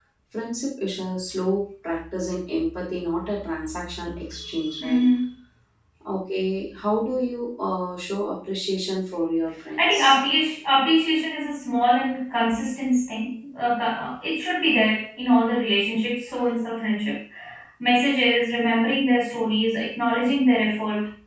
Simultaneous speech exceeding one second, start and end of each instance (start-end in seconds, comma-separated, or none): none